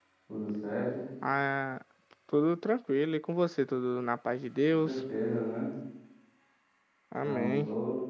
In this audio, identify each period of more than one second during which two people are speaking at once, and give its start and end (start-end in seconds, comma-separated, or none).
none